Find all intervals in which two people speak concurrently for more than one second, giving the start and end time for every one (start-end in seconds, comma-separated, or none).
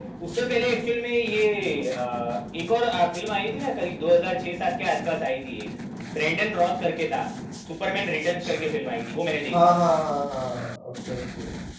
none